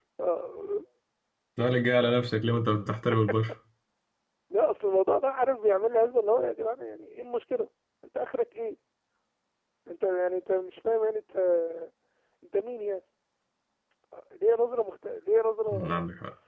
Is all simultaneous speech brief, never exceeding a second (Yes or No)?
Yes